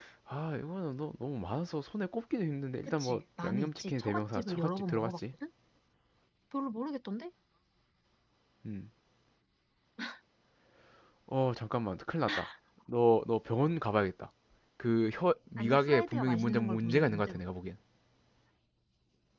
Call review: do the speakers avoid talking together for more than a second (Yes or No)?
No